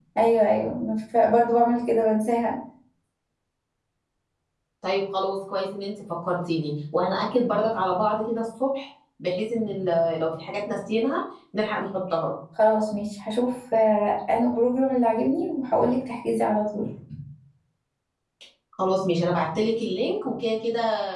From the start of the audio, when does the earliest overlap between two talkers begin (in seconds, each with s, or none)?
none